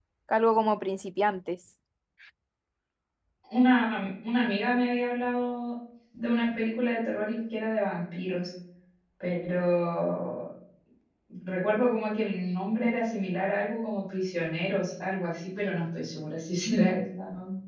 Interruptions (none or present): none